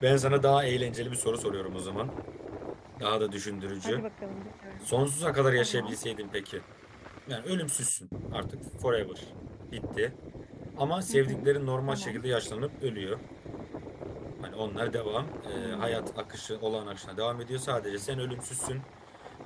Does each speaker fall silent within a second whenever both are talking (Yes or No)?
Yes